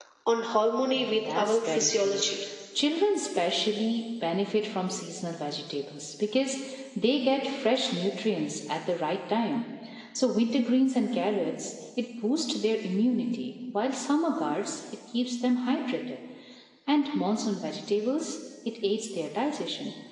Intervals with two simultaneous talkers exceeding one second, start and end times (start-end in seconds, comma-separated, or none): 0.9-2.2